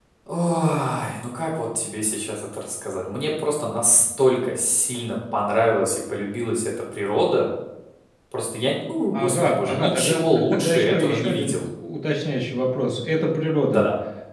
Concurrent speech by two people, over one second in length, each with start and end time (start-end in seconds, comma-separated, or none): 9.1-11.5